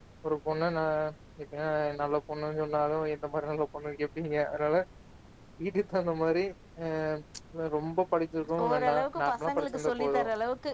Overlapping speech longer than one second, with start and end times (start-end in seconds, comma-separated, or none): 8.7-10.2